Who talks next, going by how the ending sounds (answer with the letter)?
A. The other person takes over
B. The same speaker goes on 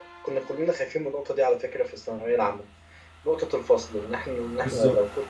B